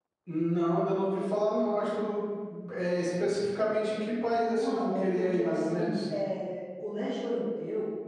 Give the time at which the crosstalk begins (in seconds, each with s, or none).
4.5 s